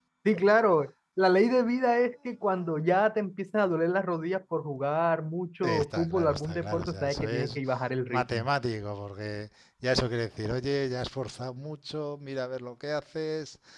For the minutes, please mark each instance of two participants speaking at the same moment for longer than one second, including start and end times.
5.6-7.6

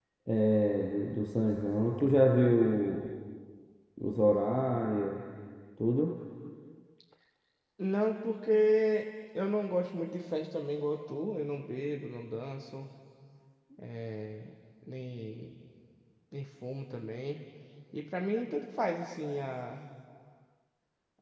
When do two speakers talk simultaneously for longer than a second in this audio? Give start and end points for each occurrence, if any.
none

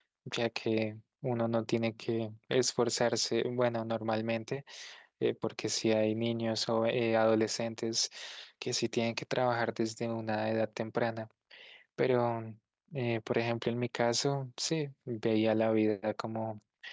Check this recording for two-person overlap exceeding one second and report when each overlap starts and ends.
none

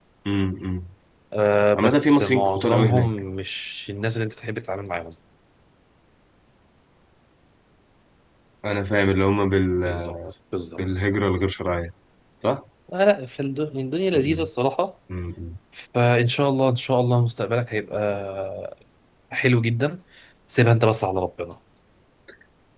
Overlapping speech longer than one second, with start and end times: 1.8-3.1

